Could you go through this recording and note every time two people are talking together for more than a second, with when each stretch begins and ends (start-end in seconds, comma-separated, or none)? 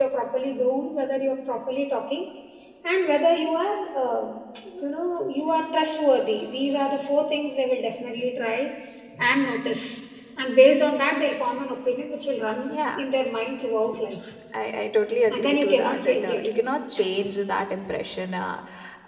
15.3-16.5